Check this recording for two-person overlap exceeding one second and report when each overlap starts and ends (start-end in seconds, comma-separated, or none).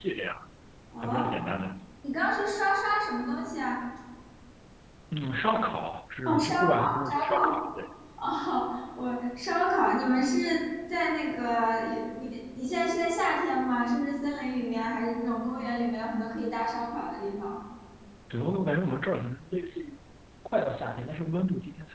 6.2-7.5